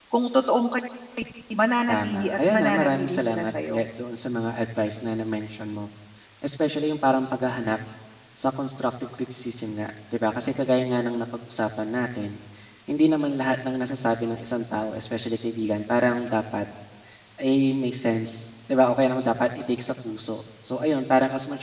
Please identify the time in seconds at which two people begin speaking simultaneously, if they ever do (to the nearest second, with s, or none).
2 s